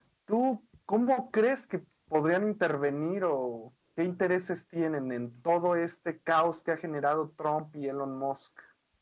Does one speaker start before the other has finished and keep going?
No

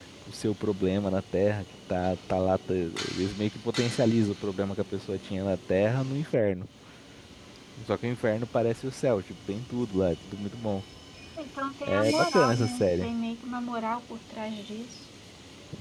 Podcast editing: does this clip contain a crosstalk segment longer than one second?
Yes, from 11.9 s

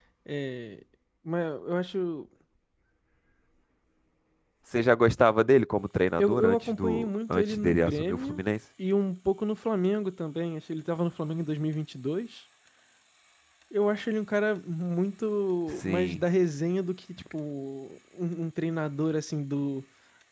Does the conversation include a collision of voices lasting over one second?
Yes, from 6.2 s

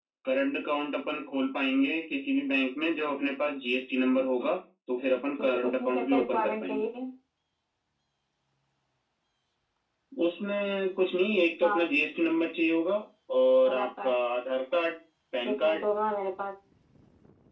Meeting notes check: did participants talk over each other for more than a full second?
Yes, from 5.4 s

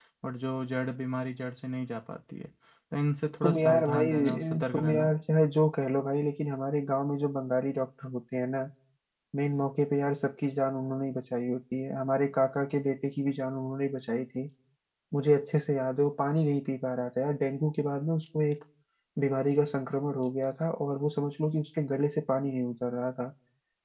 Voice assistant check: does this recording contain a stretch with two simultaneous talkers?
Yes, from 3.4 s

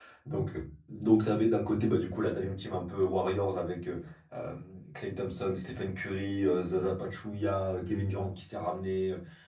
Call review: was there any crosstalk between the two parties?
No

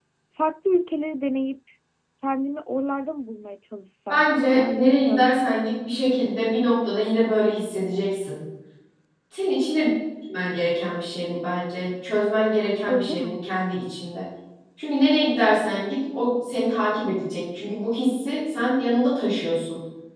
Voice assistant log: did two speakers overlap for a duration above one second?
Yes, from 4.1 s

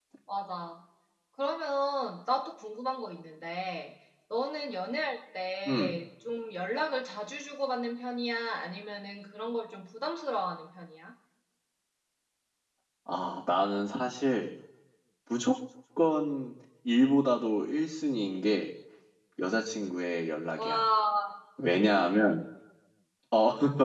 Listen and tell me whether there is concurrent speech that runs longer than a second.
No

